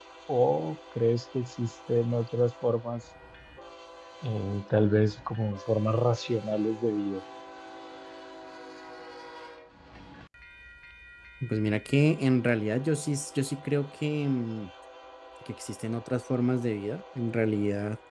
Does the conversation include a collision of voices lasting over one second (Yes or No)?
No